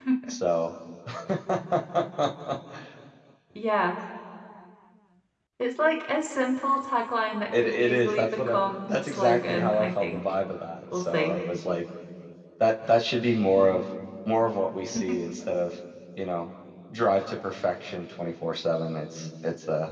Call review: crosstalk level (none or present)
present